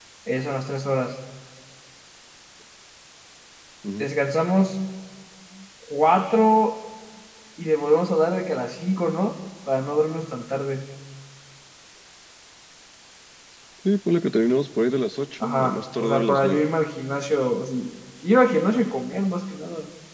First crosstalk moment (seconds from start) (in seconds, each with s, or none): 15.4 s